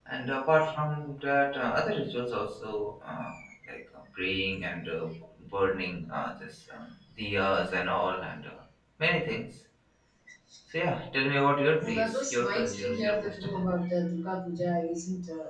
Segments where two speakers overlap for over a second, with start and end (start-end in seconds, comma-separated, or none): 11.8-13.7